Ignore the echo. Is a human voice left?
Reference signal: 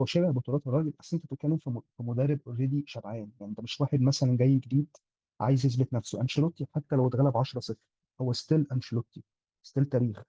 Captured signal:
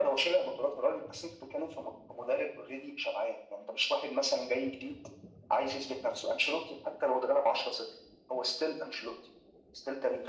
No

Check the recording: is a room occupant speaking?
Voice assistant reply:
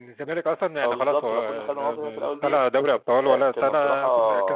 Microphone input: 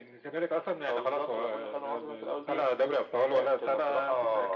No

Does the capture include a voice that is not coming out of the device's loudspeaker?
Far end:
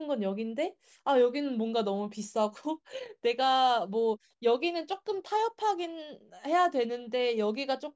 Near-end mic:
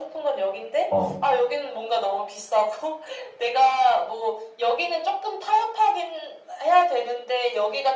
Yes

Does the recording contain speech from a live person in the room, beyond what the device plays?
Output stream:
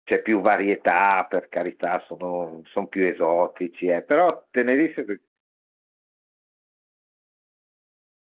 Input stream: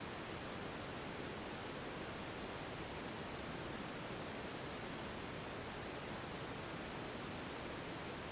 No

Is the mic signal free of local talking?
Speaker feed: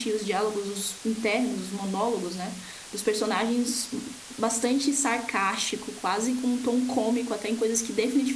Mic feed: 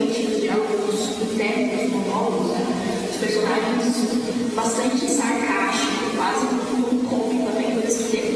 Yes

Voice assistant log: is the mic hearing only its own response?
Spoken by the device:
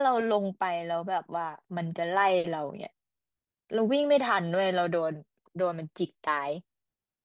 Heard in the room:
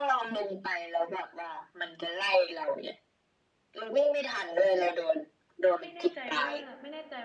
No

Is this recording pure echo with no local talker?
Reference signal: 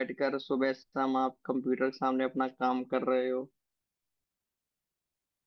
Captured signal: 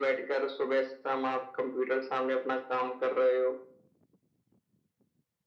Yes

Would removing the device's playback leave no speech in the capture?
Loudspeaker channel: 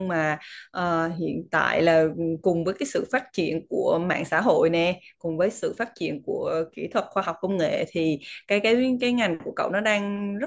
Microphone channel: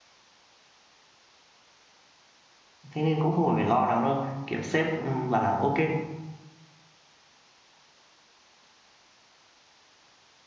No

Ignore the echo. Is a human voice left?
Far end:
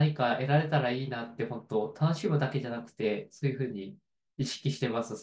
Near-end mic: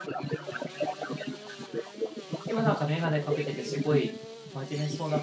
Yes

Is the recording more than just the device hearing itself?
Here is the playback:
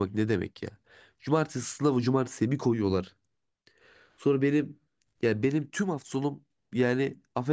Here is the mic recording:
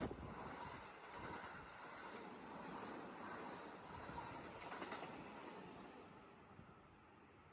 No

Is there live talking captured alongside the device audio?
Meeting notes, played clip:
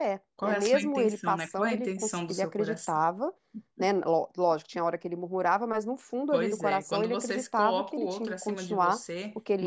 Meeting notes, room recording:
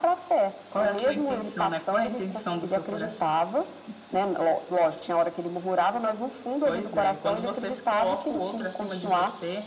No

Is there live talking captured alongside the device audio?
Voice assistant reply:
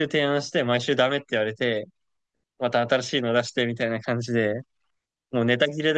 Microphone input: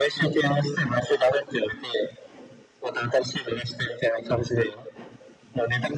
No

